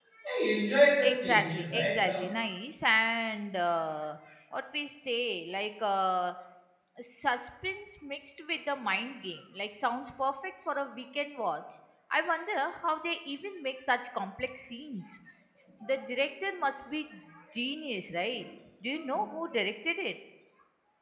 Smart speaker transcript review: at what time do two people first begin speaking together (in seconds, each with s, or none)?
1.0 s